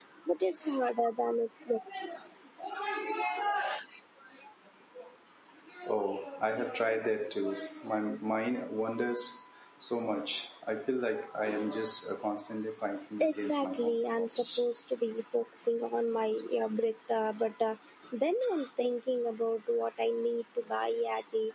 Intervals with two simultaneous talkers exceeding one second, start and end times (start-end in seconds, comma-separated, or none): 13.2-14.6